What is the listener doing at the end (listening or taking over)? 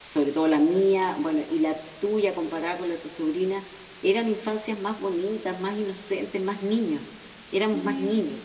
taking over